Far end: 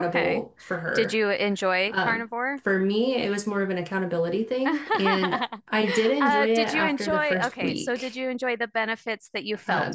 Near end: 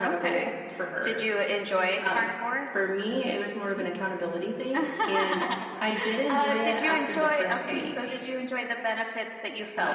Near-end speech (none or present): present